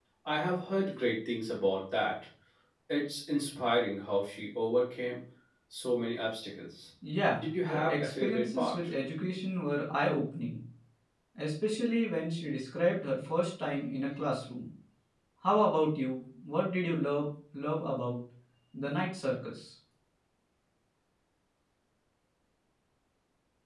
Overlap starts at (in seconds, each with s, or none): 7.4 s